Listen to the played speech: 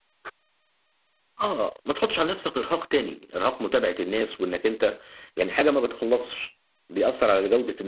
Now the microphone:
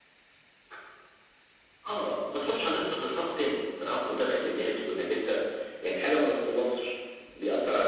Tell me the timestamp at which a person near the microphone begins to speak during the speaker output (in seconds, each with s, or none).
none